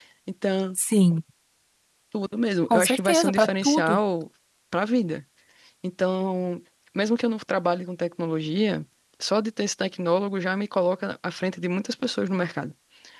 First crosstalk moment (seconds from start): 2.7 s

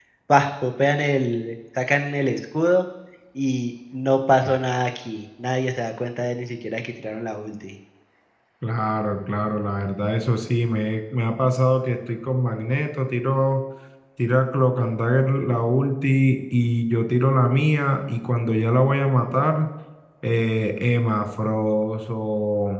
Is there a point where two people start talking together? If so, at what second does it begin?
none

